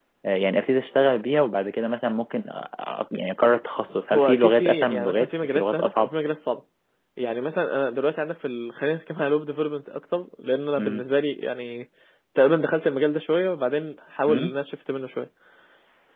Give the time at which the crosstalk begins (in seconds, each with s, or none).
4.1 s